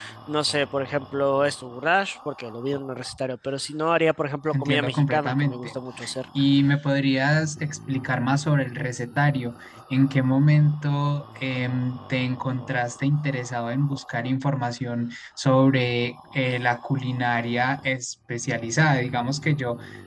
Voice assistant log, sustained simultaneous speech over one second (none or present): present